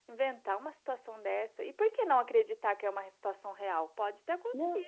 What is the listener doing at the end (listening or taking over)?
taking over